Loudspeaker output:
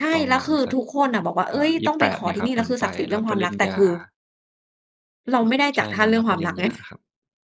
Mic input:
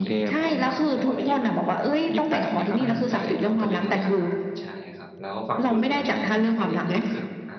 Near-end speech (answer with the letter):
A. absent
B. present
B